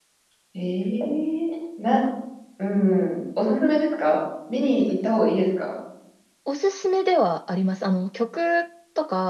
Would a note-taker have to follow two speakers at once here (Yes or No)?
No